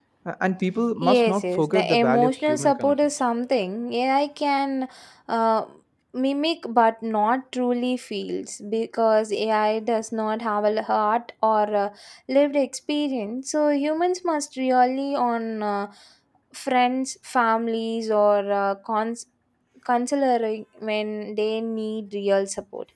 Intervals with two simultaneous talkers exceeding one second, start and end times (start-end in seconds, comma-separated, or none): 1.0-2.9